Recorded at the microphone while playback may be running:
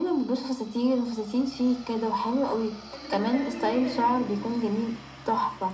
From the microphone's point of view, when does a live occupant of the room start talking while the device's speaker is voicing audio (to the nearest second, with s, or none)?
3 s